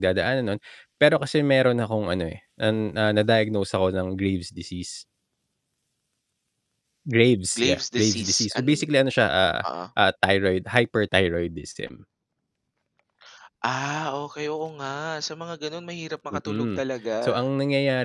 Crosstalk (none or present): present